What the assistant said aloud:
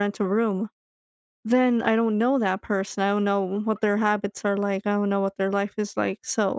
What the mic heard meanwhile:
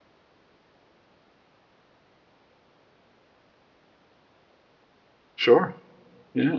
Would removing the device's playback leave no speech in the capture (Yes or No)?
No